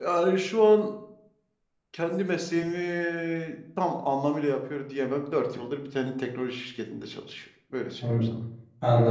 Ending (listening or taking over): taking over